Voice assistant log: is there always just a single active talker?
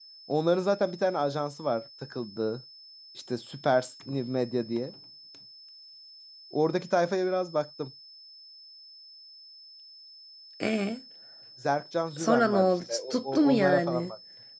No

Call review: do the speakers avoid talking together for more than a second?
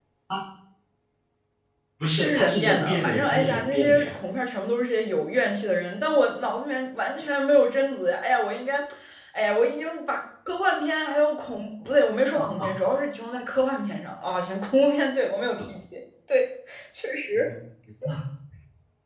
No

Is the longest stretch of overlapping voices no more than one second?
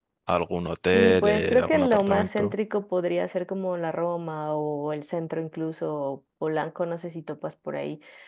No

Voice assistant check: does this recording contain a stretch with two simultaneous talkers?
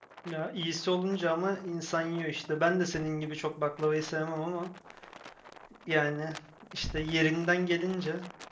No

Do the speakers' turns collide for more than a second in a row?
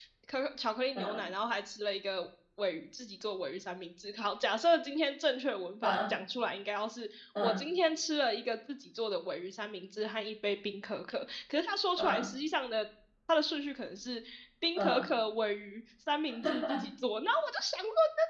No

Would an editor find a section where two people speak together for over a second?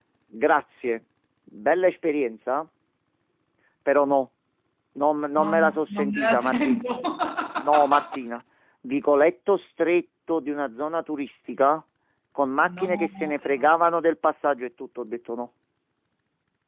Yes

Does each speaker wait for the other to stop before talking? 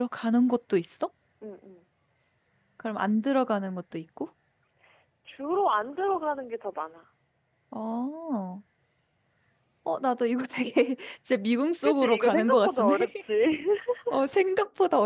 No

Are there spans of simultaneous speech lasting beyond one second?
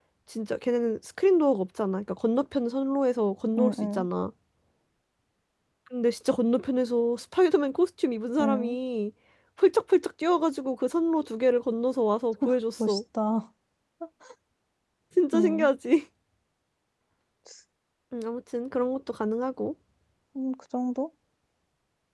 No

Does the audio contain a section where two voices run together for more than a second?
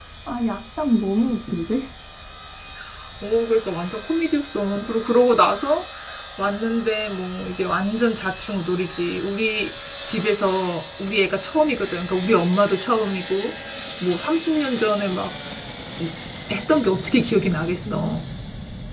No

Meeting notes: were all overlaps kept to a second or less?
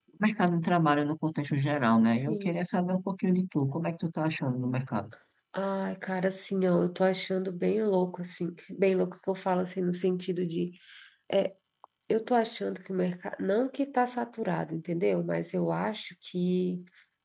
Yes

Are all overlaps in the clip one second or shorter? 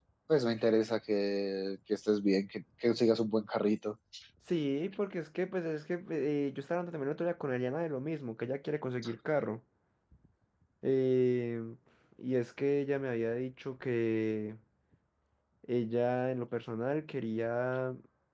Yes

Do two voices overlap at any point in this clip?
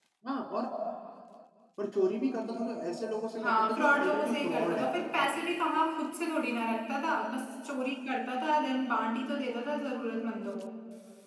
Yes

